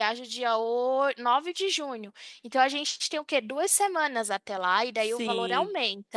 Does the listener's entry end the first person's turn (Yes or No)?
Yes